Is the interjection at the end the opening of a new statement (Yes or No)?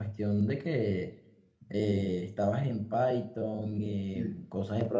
No